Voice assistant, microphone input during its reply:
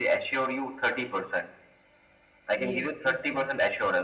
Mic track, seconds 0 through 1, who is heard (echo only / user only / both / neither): echo only